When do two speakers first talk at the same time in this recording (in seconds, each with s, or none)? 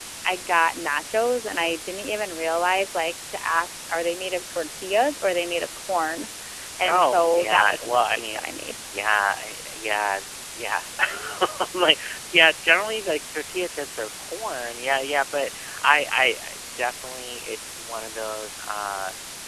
6.9 s